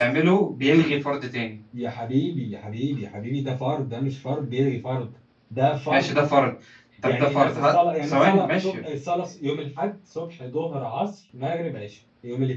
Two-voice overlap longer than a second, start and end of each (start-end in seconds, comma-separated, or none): 7.0-8.8